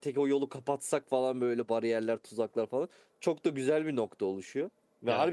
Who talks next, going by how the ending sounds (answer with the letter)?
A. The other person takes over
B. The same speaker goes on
B